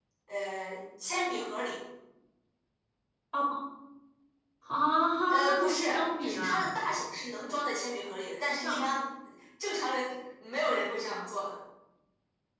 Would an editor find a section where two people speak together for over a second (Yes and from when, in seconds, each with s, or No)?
Yes, from 5.3 s